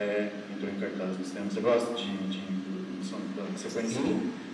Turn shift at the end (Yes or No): Yes